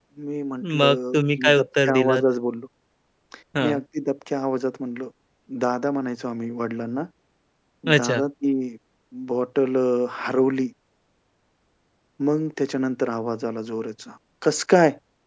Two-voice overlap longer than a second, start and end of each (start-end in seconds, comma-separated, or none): 0.8-2.2